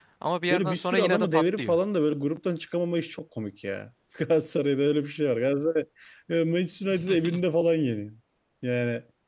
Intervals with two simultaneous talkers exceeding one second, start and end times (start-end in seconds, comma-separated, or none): 0.5-1.8